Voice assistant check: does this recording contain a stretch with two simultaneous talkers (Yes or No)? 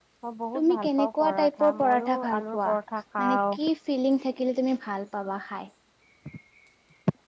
Yes